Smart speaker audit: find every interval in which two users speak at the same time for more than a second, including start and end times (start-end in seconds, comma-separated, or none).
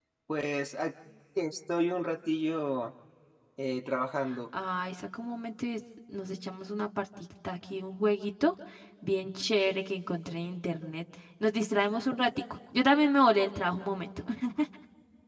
none